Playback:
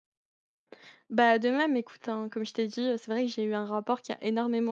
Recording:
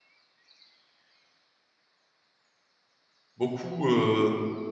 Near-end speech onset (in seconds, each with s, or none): 3.4 s